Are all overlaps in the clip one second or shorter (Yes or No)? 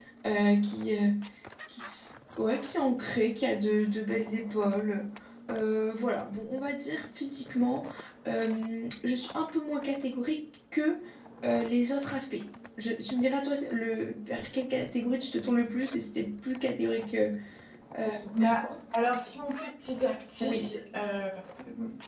Yes